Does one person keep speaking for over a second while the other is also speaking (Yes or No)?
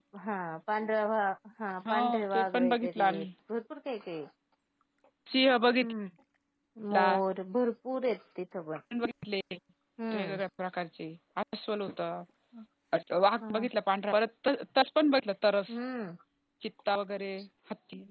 Yes